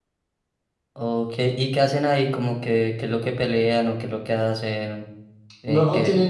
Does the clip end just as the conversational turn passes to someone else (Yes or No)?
Yes